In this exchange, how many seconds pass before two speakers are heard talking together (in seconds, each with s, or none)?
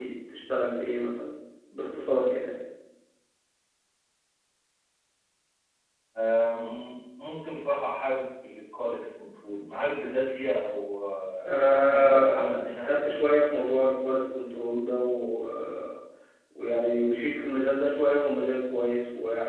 11.4 s